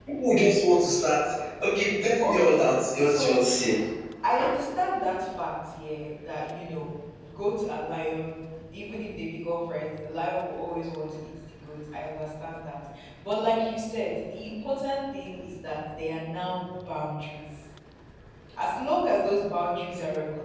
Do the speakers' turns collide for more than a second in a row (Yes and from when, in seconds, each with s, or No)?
Yes, from 2.2 s